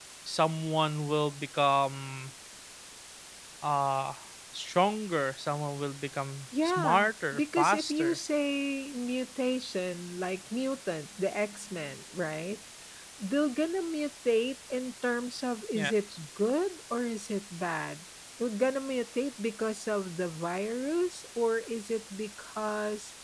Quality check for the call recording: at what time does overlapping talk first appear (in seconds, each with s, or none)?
6.6 s